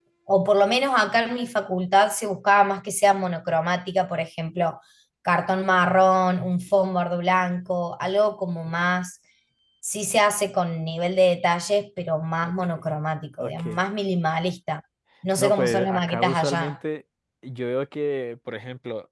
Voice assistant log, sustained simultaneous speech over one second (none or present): present